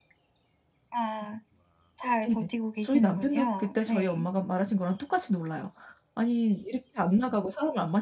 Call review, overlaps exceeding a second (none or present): present